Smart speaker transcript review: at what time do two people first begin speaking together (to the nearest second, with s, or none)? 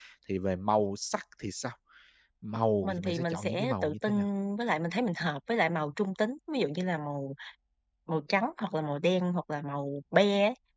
3 s